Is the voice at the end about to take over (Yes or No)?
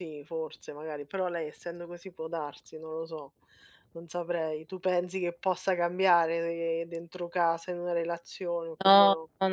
Yes